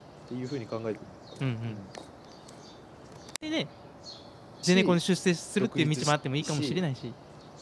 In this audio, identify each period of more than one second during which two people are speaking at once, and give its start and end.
5.6-6.8

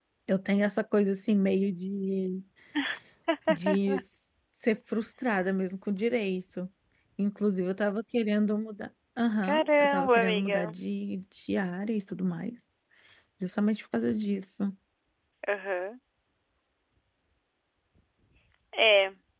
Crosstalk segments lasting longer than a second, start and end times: 9.4-10.7

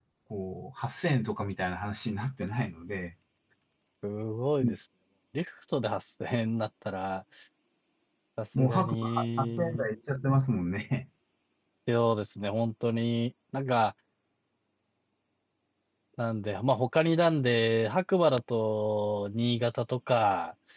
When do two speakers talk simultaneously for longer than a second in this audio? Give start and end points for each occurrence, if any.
8.6-9.8

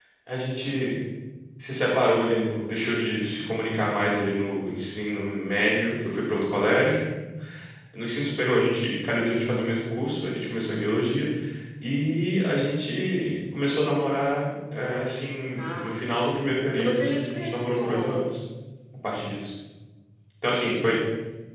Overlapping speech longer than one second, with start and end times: 16.8-18.4

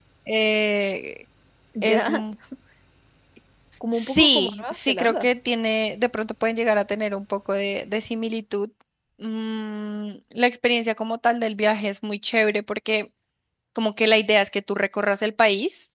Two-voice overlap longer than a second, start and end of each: 3.9-5.3

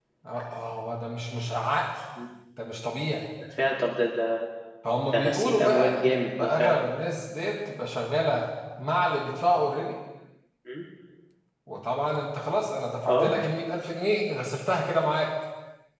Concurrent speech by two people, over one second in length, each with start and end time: 5.1-6.8

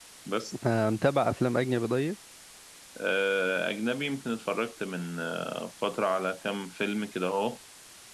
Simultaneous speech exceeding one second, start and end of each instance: none

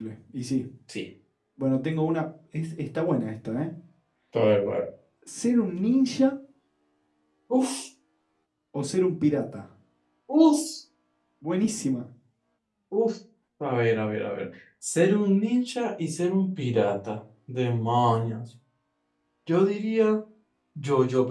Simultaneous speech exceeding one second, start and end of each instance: none

